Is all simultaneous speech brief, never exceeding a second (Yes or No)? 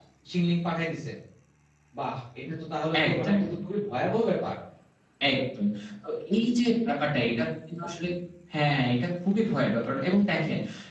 Yes